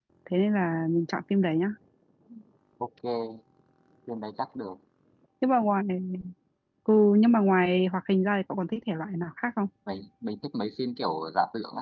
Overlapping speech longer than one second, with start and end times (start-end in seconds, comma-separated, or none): none